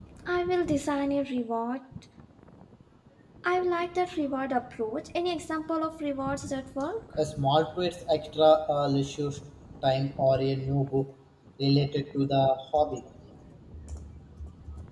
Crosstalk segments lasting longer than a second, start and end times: none

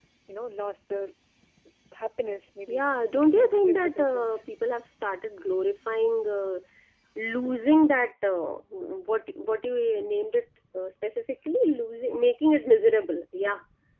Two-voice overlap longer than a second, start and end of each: 2.7-4.3

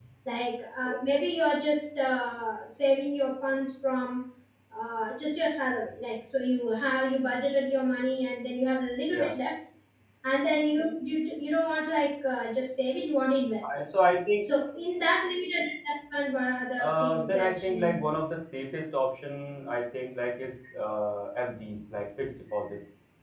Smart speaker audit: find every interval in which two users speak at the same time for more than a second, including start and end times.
16.8-18.1

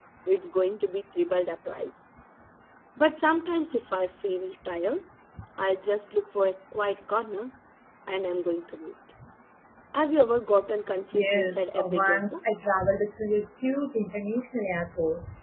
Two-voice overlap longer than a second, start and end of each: 11.1-12.4

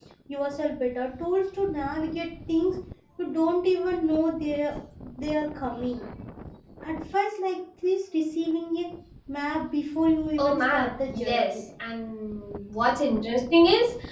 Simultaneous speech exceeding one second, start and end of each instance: 10.4-11.6

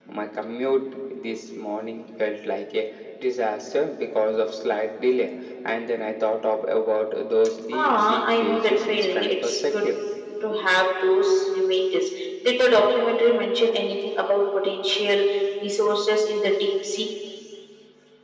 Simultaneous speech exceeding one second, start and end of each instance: 7.7-9.9

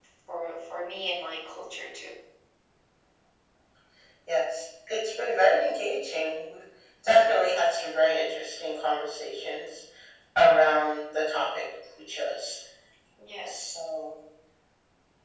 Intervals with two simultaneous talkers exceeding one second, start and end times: none

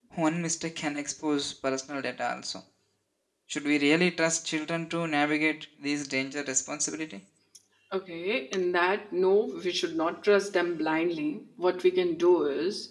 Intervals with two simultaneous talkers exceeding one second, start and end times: none

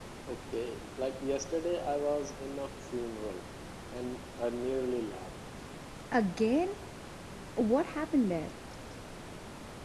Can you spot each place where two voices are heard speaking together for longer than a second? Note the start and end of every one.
none

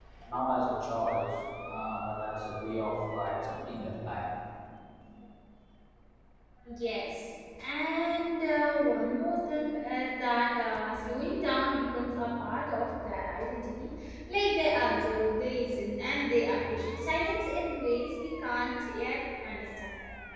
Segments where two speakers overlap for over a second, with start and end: none

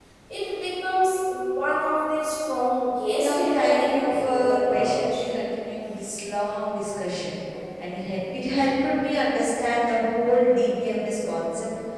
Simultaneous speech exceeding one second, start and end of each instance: 3.2-5.2

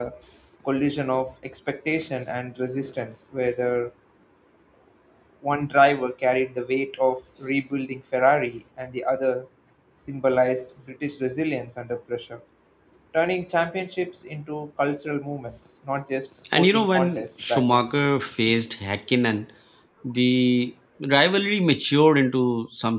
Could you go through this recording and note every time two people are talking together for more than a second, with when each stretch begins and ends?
16.6-17.8

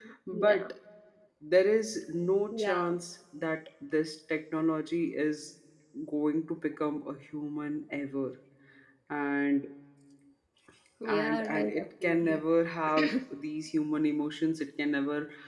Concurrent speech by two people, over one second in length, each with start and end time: 11.0-12.4

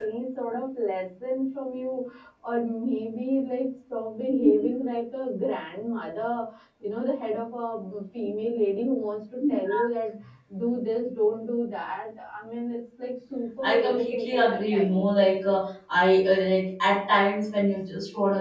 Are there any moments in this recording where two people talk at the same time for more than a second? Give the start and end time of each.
13.6-15.0

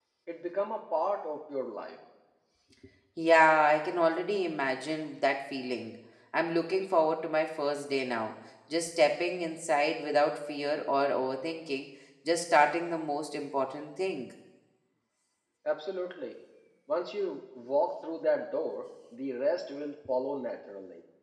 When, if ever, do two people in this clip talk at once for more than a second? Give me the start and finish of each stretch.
none

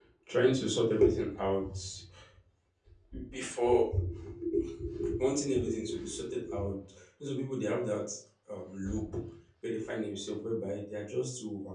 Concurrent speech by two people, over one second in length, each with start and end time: none

